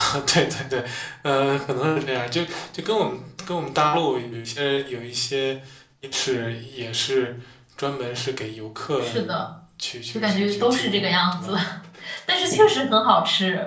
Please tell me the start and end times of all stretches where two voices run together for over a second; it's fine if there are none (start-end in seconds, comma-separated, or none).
10.1-11.5